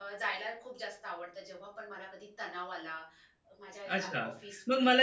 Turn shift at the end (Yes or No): Yes